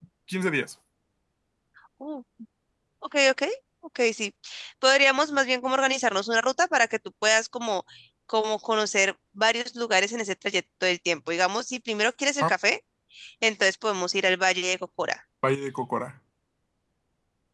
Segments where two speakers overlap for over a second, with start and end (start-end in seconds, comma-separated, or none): none